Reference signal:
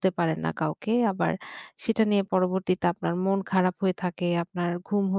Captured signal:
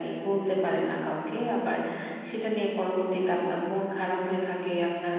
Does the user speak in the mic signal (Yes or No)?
No